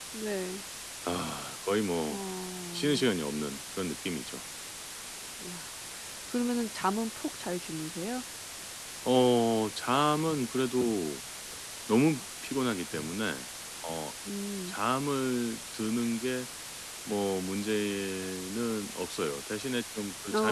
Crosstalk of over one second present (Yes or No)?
No